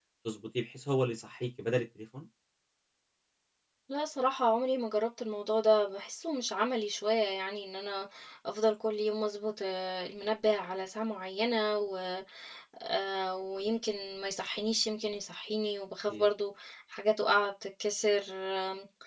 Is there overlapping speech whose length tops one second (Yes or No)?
No